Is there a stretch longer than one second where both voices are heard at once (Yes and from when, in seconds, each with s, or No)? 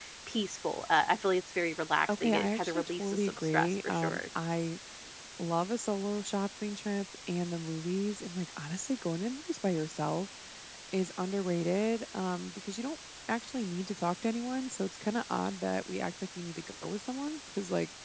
Yes, from 2.1 s